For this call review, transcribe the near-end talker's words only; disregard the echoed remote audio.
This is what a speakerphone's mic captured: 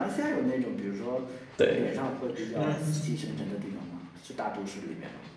对，嗯

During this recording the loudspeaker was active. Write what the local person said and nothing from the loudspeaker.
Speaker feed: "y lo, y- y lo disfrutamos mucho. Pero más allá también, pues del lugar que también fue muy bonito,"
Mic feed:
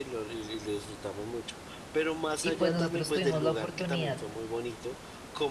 Y pues nosotros tuvimos la oportunidad

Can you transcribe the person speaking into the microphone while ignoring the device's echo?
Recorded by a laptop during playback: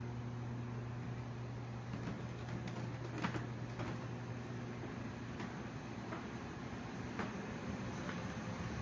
none

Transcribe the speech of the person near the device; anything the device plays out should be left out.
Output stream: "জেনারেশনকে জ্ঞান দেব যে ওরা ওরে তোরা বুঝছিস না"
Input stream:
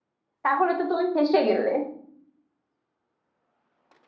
তাহলে তো তুমি ফেঁসে গেলে

